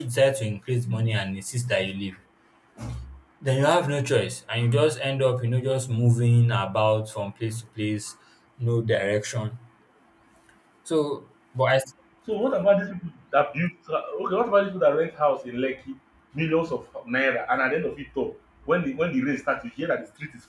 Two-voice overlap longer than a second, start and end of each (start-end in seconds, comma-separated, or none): none